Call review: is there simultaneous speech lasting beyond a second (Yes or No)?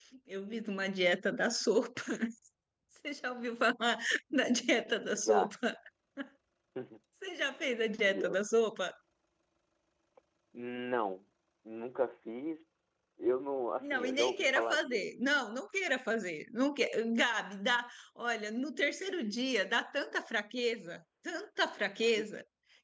Yes